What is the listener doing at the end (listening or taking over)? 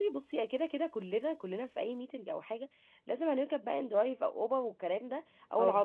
listening